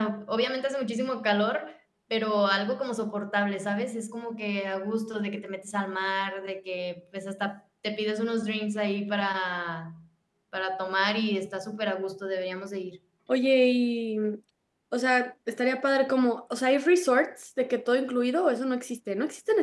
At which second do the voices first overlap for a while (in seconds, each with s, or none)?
none